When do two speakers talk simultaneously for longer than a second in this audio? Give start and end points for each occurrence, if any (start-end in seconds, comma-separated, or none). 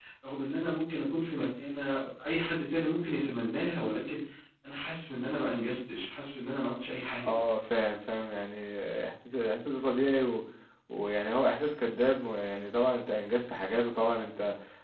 none